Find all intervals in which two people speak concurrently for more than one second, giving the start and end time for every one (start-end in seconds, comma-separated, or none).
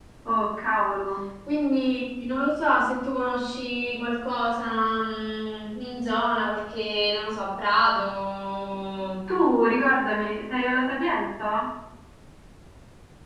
none